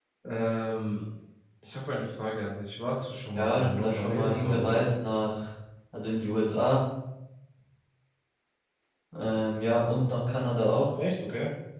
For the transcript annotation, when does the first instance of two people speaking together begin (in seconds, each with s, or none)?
3.4 s